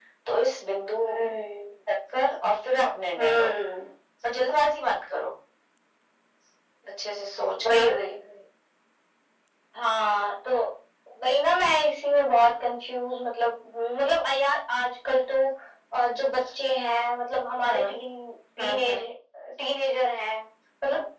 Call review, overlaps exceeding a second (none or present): none